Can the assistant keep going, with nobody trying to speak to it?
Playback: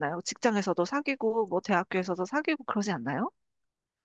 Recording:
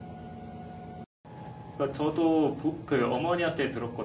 No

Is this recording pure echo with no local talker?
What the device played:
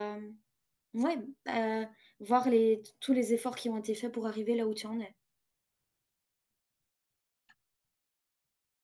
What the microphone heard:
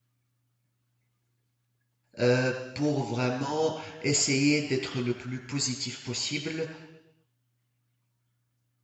No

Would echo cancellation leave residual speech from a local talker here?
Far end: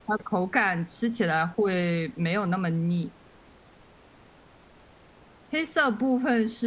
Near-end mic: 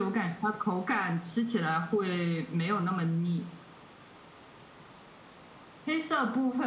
No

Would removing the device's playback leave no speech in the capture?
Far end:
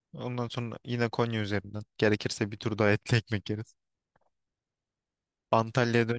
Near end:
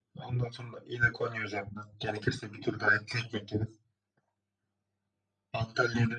Yes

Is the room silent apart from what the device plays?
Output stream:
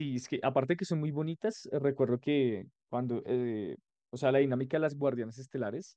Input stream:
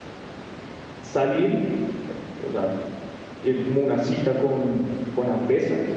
No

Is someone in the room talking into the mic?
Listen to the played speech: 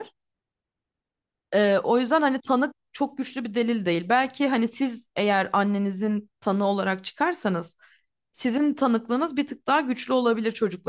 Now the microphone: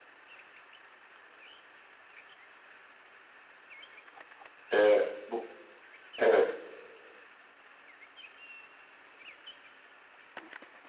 Yes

